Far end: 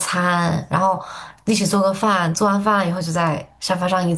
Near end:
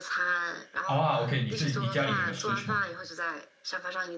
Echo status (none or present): present